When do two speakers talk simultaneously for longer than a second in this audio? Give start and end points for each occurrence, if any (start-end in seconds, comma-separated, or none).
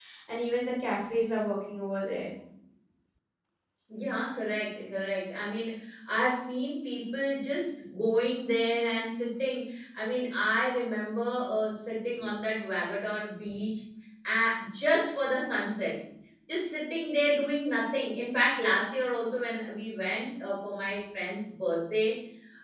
none